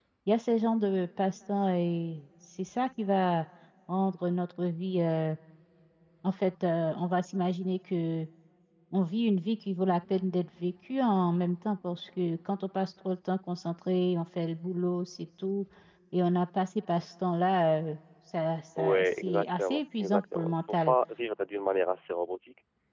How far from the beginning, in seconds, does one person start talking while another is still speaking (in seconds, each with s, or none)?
18.8 s